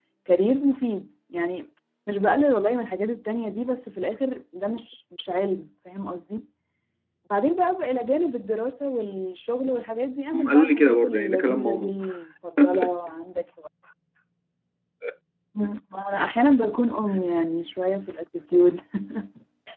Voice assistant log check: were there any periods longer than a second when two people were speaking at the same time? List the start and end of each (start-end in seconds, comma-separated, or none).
10.3-11.9